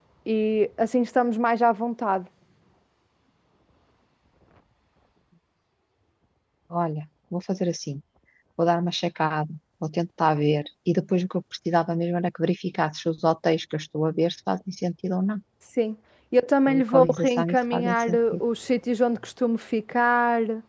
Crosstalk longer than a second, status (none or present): present